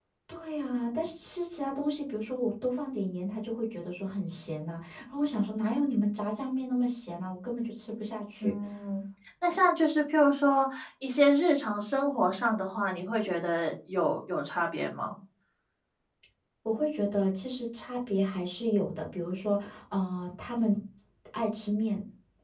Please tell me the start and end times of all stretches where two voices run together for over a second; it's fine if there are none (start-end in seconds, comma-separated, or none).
none